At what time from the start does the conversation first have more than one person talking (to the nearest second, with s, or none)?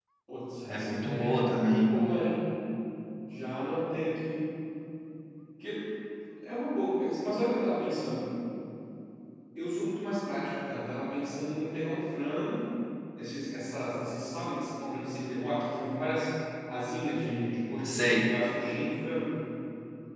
1 s